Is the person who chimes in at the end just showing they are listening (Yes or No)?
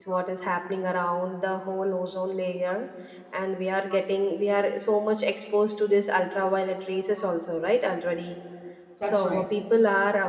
Yes